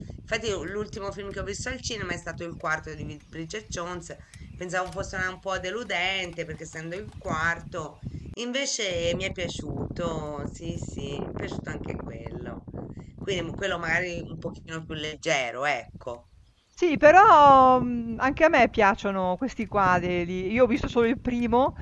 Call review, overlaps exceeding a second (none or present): none